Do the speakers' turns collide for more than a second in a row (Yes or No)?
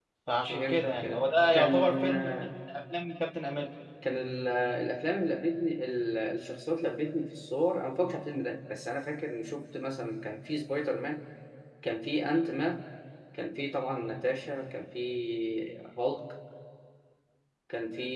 Yes